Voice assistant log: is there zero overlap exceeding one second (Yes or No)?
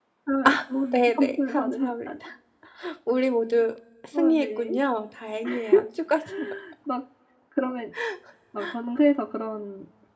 No